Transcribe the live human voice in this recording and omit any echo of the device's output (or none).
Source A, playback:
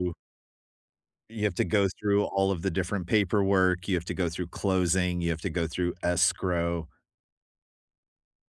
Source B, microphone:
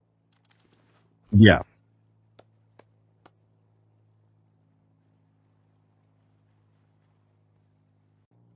Yeah.